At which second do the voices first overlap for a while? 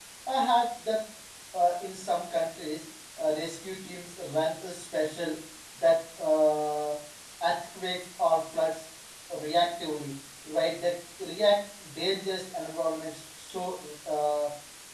none

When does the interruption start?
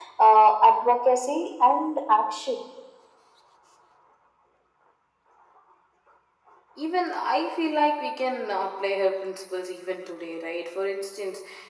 none

